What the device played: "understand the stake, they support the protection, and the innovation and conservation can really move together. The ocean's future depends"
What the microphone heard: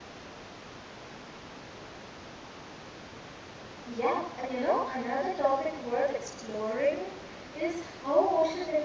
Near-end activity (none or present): present